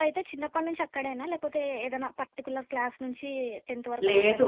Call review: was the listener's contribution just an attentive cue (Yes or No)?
No